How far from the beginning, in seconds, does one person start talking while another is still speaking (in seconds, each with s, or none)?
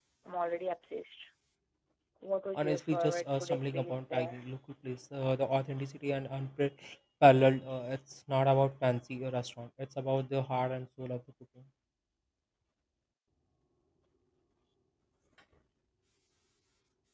2.5 s